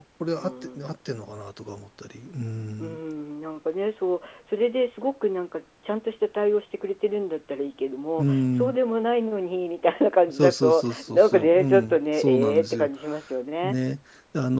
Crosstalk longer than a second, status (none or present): present